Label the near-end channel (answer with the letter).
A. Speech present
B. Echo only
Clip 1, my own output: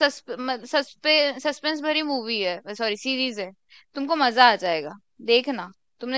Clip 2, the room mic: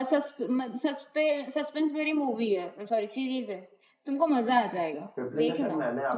A